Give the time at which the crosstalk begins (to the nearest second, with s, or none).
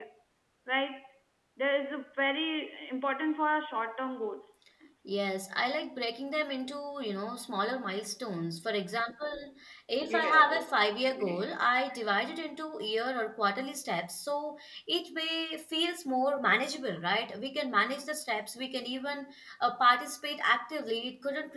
10 s